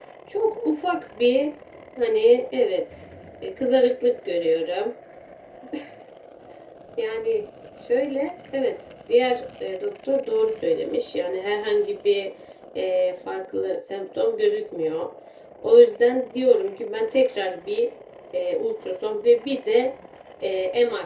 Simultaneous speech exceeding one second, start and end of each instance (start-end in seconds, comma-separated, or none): none